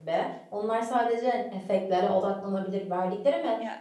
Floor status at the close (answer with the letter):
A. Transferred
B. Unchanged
B